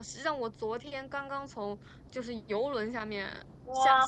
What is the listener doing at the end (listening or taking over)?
taking over